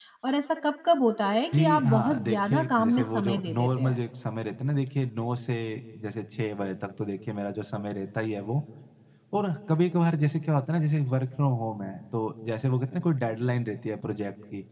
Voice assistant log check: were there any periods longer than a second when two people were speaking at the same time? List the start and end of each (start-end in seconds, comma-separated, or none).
1.5-4.0